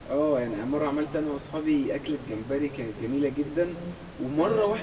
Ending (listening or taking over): listening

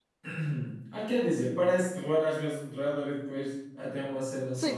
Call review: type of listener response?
taking over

